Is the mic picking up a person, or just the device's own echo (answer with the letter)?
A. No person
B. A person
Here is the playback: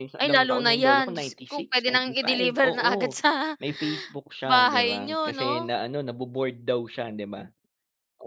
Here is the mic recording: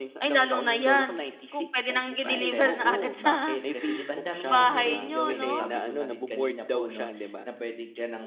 B